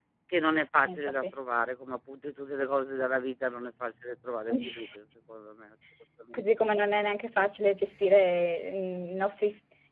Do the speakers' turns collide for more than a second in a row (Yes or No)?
No